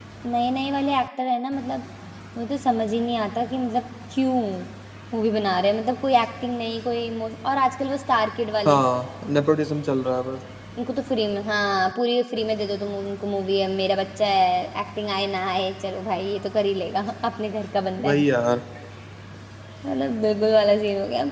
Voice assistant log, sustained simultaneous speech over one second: none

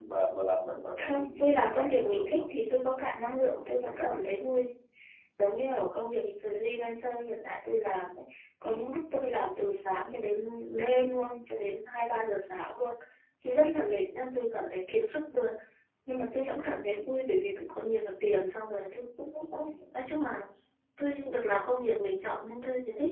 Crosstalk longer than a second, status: present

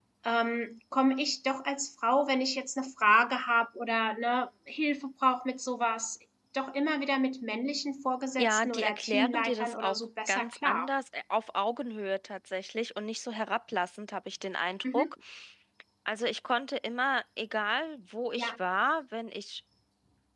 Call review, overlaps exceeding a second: present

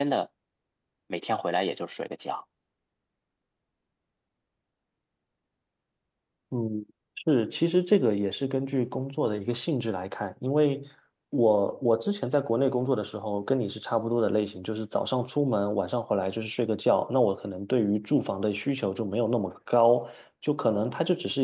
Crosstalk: none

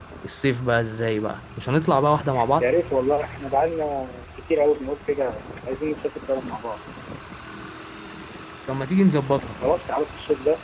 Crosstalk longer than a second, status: none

